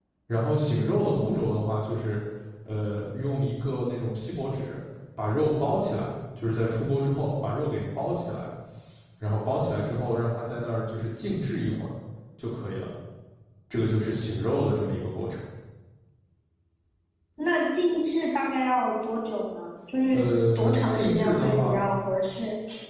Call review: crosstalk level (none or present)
present